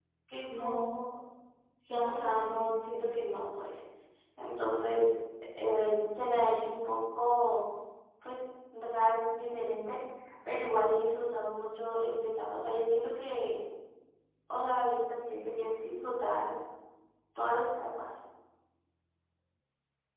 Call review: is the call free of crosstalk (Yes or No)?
No